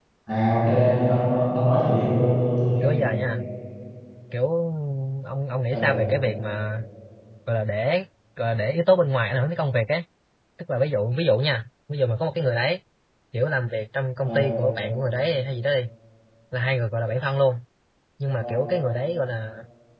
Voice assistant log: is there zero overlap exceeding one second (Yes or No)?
Yes